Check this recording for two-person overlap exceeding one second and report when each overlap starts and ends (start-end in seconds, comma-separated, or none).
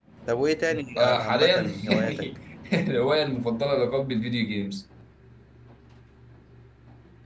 1.0-2.2